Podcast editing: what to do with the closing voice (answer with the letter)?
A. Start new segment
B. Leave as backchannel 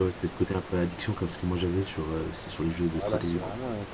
A